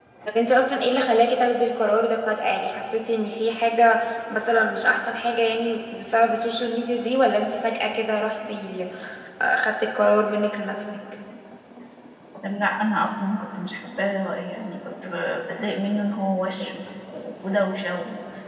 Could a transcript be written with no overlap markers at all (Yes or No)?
Yes